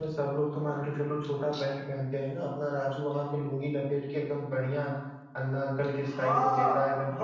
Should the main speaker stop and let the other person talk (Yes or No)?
Yes